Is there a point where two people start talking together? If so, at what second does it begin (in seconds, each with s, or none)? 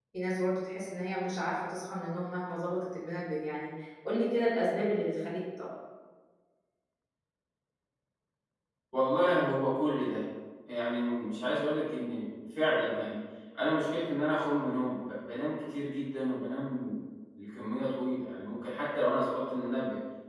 none